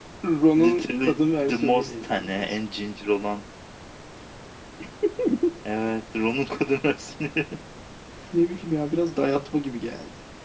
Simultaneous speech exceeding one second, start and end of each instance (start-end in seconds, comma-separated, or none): 0.6-2.6